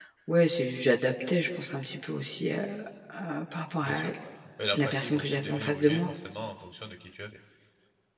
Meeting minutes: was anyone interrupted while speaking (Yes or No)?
Yes